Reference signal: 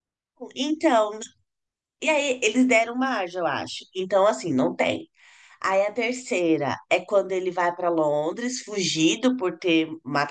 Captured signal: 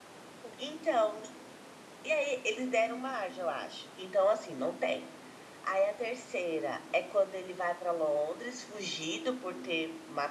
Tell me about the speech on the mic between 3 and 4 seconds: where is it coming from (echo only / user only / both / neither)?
echo only